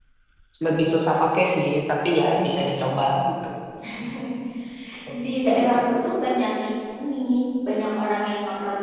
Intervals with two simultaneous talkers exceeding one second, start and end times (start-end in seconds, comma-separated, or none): none